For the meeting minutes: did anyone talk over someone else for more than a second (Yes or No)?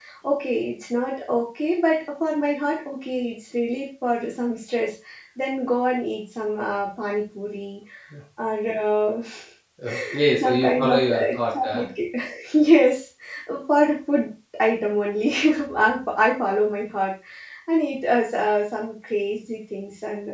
Yes